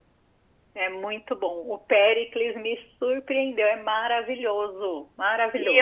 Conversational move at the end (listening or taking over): taking over